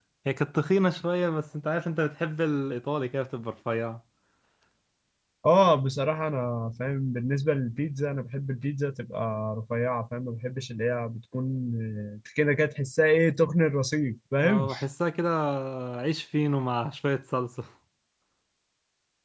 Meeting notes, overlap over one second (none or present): none